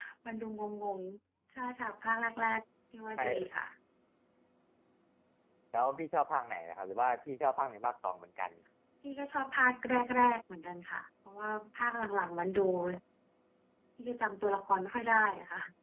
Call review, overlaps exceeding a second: none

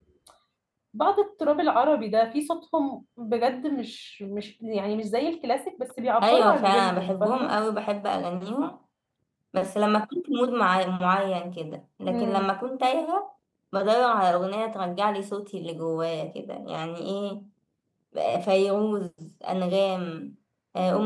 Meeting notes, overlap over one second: present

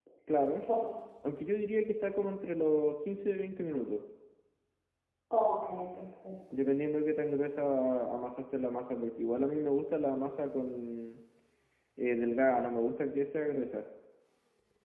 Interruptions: none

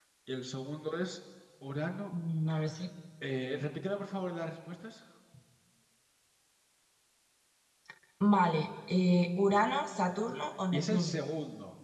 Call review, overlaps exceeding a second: none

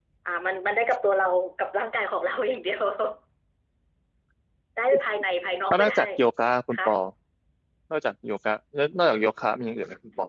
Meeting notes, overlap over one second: none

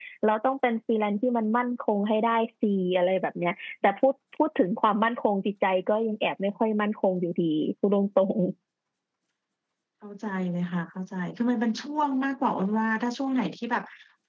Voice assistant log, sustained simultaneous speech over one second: none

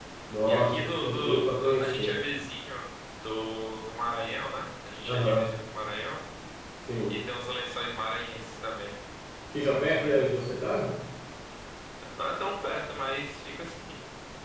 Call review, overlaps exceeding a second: present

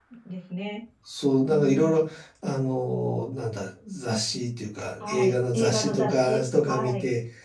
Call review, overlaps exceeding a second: present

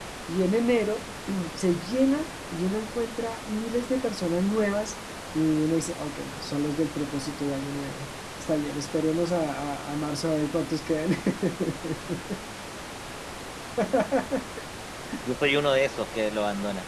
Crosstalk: none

